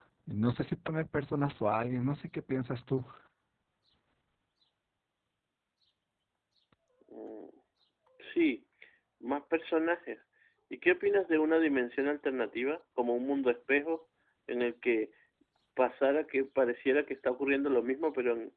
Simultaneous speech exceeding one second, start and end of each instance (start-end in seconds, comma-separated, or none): none